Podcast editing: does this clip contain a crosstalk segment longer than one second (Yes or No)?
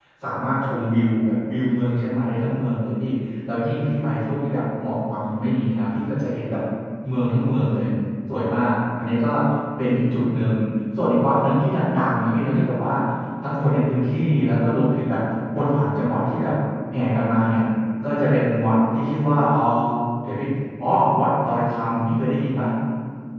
No